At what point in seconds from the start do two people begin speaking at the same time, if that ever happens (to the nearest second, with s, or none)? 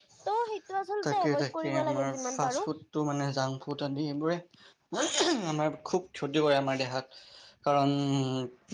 1 s